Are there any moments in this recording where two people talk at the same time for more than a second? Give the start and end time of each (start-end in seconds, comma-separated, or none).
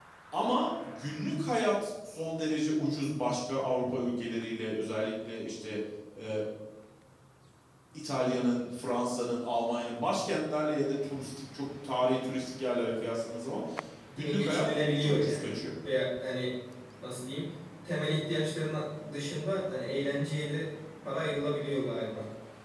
14.2-15.5